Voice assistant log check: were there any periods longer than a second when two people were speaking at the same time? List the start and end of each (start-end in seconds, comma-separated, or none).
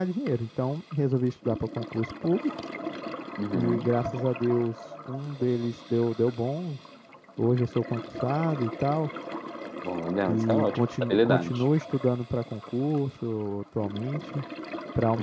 10.3-11.6